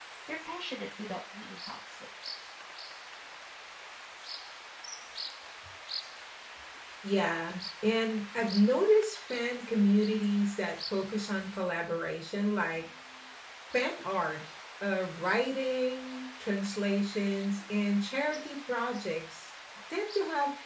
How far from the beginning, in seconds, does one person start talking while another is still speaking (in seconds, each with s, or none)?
none